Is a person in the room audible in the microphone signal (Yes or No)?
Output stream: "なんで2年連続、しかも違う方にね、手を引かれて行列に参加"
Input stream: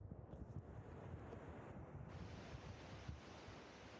No